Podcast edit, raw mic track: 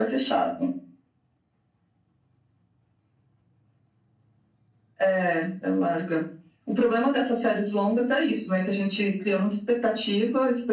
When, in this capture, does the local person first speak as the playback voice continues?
none

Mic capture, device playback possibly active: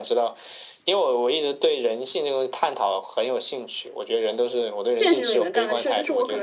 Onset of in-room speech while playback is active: 4.9 s

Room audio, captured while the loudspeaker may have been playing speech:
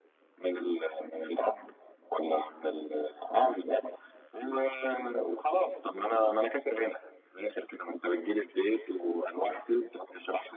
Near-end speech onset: none

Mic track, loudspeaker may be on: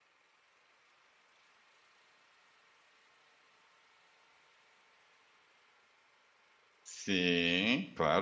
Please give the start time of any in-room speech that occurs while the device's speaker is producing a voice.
6.8 s

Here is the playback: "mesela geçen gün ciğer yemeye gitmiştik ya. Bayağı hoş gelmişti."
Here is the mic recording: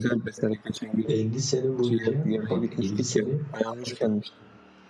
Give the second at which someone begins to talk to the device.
1.0 s

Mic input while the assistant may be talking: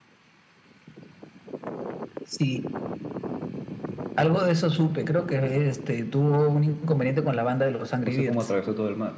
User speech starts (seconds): 8.0 s

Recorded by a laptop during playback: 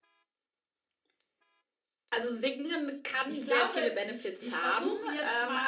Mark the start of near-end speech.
3.3 s

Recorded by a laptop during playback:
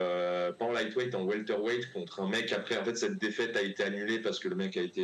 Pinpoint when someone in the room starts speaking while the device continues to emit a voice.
none

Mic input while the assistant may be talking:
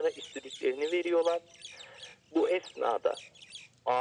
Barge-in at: none

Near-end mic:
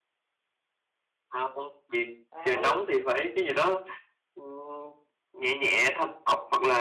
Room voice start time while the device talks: 2.3 s

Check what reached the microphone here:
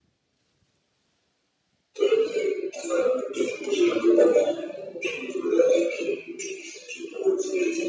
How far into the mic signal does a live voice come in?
none

